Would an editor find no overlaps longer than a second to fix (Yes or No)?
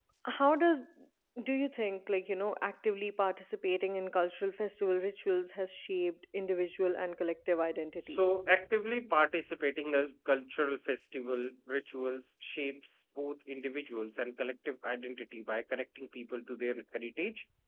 Yes